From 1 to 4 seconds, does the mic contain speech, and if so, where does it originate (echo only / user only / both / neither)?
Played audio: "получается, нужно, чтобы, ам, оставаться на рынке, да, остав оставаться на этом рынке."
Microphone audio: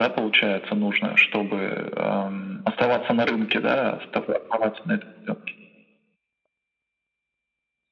echo only